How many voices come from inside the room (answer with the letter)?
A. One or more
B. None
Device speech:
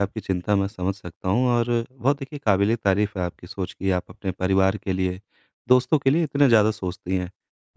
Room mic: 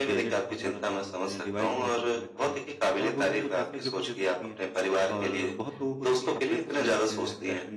A